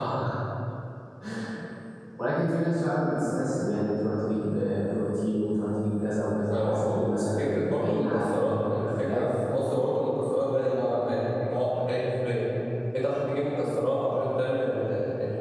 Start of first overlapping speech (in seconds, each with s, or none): 6.5 s